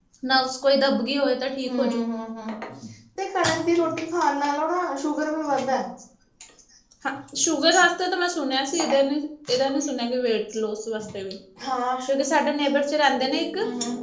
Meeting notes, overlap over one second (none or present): none